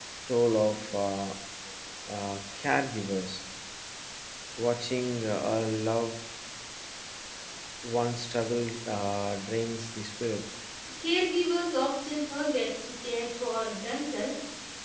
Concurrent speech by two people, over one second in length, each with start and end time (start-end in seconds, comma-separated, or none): none